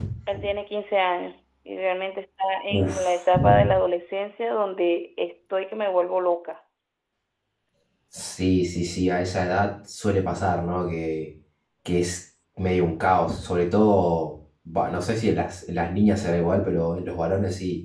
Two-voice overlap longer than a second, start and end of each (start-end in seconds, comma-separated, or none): none